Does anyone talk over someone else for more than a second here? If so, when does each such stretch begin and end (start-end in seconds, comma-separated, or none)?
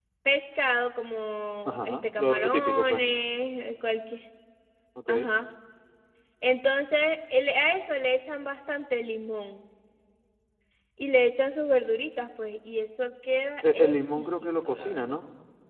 1.6-3.0, 13.7-15.1